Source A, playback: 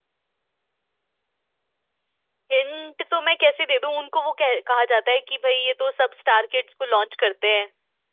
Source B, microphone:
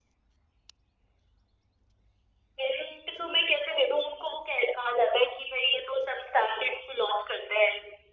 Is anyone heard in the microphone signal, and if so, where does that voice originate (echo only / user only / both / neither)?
echo only